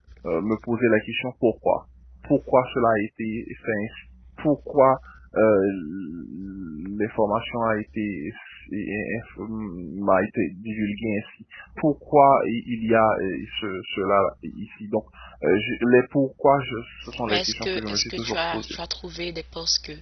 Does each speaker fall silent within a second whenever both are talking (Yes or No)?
No